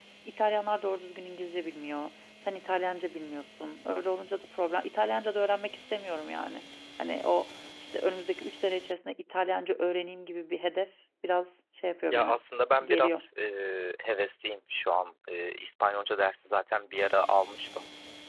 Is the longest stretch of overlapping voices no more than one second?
Yes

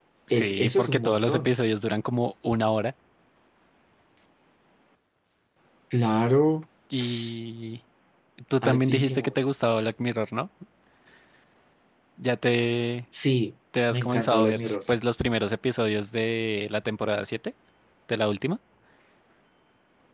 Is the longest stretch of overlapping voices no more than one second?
No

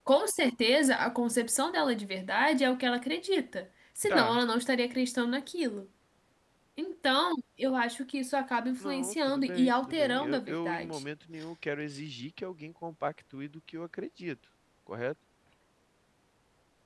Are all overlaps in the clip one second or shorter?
No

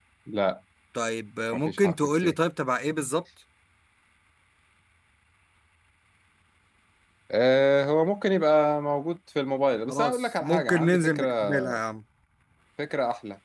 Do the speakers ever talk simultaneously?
Yes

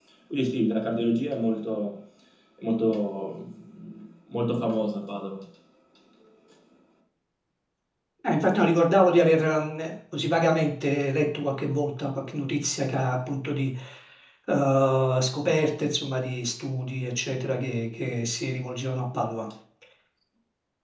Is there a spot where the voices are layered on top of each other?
No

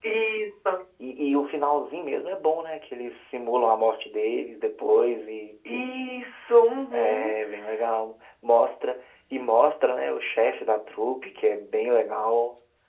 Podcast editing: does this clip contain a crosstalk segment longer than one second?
No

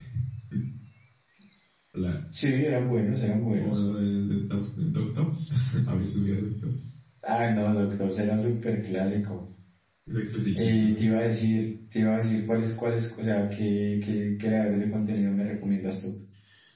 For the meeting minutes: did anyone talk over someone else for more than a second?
No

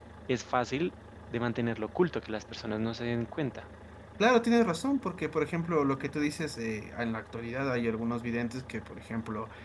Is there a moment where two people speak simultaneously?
No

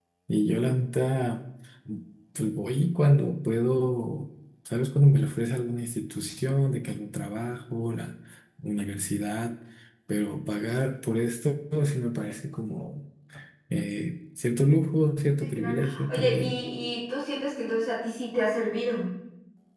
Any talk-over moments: Yes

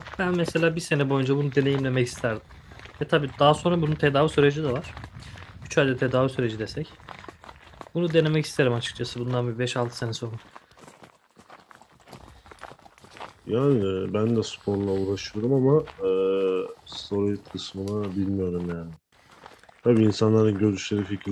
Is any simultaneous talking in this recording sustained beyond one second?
No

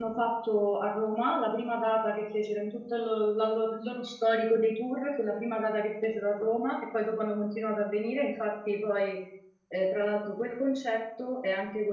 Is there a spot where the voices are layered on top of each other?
No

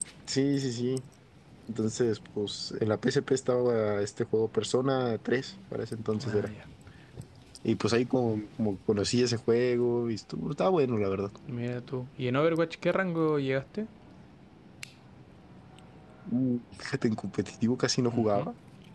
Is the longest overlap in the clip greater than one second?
No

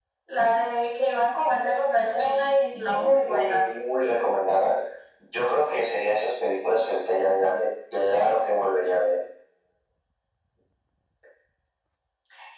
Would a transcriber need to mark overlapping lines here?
Yes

